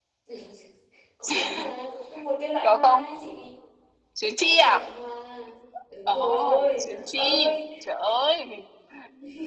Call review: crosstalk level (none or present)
present